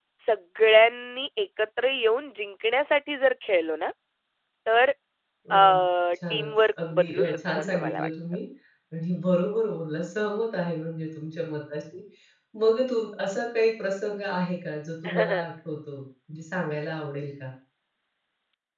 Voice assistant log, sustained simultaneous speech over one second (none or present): present